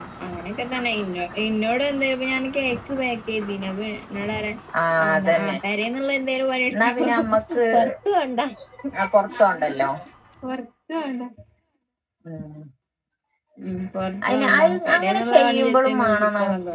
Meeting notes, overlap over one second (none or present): present